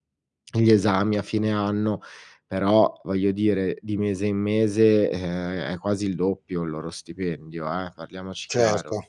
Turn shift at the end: Yes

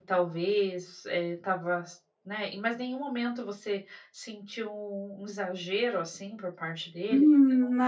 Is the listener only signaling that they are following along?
No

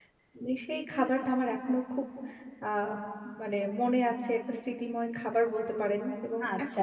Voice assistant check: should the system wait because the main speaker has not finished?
No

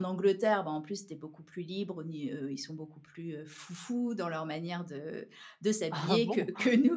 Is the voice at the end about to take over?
No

